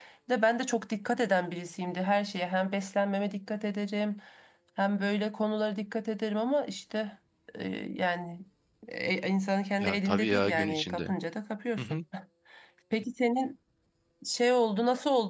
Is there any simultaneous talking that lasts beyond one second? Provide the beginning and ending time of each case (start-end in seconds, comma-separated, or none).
9.8-11.1